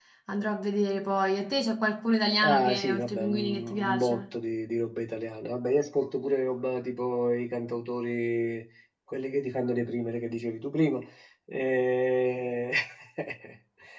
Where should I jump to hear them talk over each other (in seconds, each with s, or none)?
2.4 s